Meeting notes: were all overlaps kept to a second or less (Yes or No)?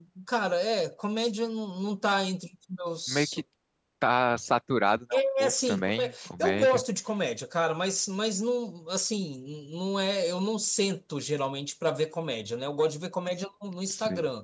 No